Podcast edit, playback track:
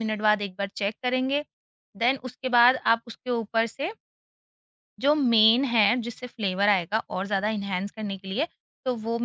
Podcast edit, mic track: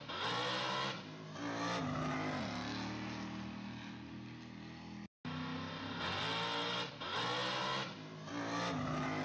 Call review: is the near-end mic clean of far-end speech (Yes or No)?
Yes